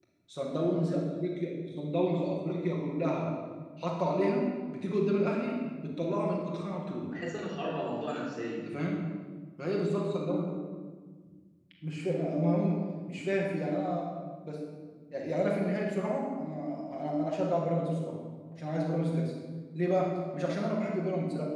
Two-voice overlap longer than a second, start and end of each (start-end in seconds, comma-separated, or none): none